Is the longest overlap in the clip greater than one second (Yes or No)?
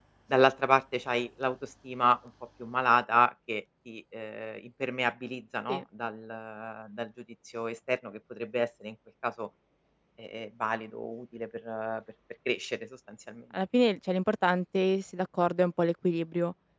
No